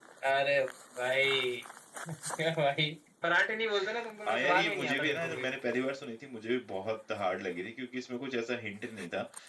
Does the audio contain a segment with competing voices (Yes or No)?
Yes